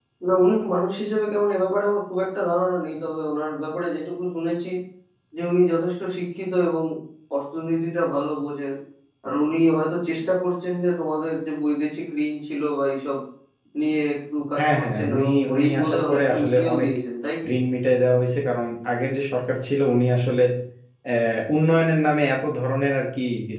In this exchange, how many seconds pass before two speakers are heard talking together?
14.6 s

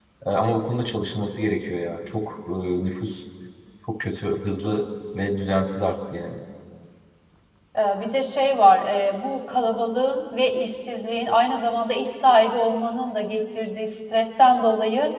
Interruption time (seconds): none

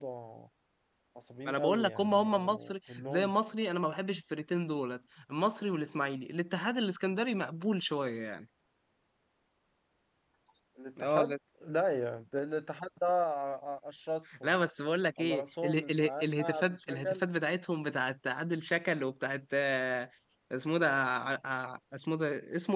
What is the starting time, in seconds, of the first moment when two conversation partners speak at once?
1.5 s

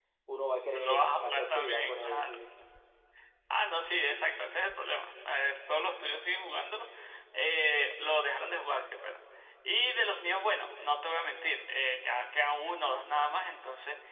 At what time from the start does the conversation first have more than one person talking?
0.7 s

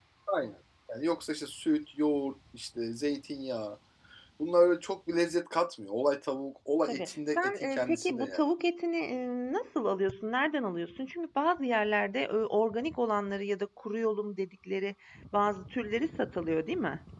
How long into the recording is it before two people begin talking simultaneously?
6.9 s

